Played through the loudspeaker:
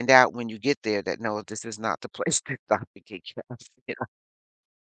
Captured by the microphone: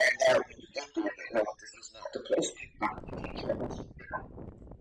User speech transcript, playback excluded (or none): none